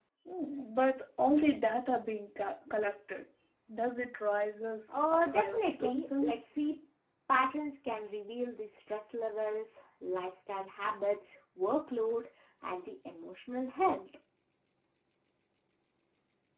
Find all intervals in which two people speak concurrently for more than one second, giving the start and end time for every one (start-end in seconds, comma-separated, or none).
4.9-6.4